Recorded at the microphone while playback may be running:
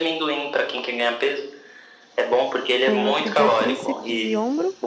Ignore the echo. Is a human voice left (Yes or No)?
Yes